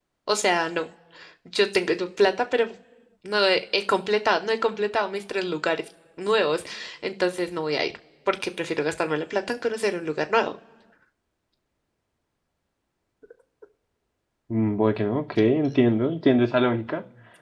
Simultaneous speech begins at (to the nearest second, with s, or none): none